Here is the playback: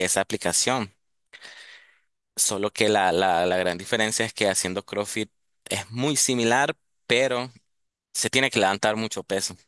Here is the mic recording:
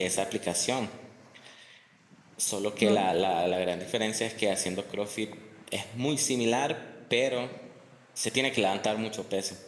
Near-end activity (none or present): present